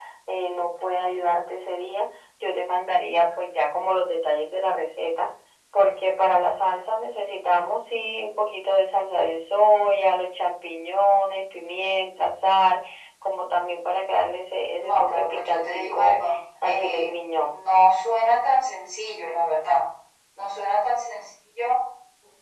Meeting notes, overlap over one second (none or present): present